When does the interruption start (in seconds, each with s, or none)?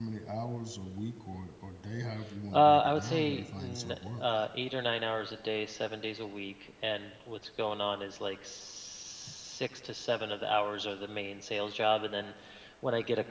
2.5 s